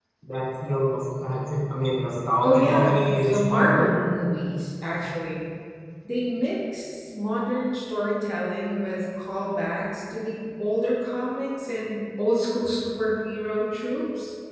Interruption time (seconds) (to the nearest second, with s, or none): 2 s